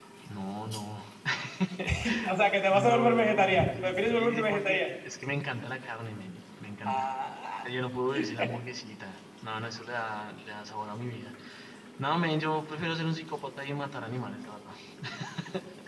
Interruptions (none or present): present